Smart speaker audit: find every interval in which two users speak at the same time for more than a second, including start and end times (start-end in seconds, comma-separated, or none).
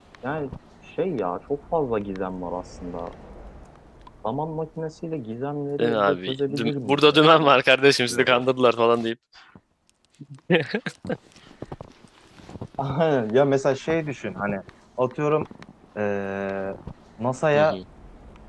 5.8-7.5